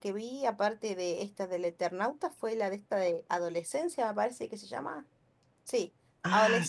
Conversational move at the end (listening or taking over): listening